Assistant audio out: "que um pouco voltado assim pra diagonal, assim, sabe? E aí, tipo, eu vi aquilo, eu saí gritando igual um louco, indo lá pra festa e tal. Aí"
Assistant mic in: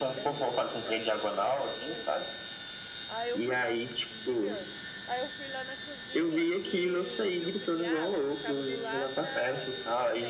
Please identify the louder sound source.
echo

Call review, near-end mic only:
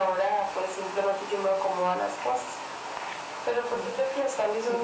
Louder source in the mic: echo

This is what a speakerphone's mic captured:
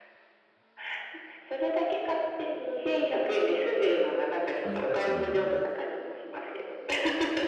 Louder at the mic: echo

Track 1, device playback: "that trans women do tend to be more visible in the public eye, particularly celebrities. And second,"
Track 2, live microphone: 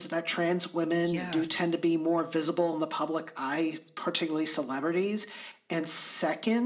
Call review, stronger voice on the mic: echo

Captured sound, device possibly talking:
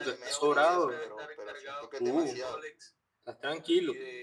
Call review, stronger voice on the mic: user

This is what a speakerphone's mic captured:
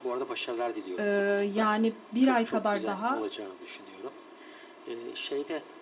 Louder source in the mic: user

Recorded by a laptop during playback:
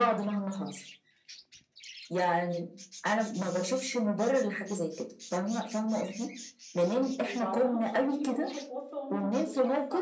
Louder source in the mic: echo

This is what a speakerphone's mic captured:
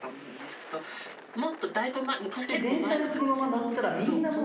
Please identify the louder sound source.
user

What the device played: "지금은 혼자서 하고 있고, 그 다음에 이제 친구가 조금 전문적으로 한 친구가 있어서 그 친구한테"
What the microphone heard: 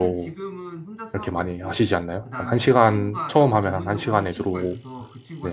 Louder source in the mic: user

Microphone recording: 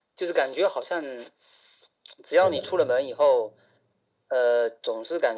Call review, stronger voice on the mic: echo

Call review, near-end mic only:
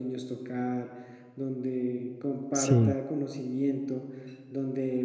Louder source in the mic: user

